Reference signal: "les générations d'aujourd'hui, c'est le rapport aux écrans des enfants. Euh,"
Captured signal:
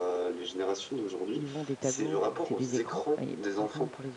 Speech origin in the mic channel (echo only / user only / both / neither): both